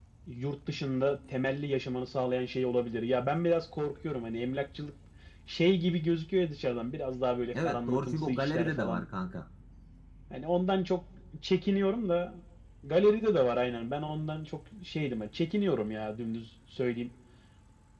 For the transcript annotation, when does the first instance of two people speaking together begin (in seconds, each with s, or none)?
7.5 s